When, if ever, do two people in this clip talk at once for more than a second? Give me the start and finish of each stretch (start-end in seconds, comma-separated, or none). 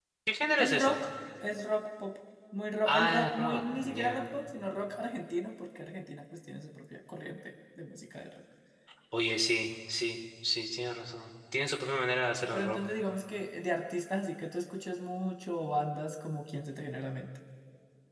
2.9-4.3